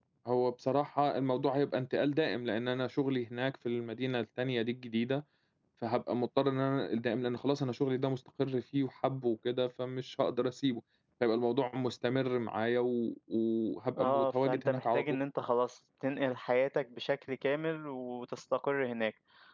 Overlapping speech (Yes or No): Yes